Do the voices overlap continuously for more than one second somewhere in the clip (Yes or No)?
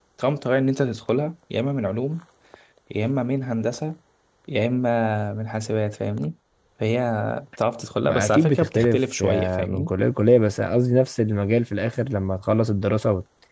Yes